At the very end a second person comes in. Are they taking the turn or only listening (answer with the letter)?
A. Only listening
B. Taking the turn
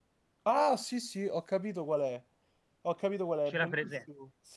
A